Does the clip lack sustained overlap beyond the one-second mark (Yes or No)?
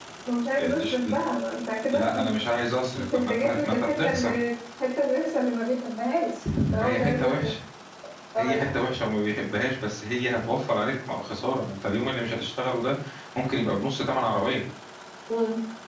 No